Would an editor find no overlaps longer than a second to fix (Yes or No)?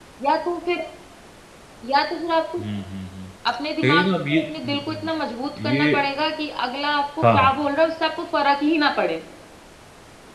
No